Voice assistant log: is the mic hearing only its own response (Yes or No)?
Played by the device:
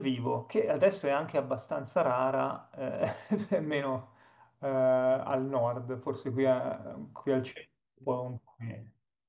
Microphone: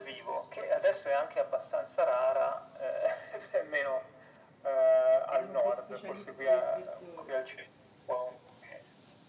No